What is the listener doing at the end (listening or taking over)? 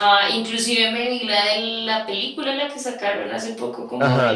taking over